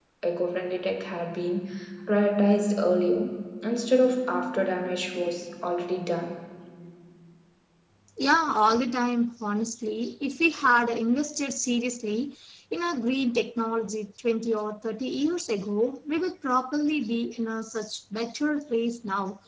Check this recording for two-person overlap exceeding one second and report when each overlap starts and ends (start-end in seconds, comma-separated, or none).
none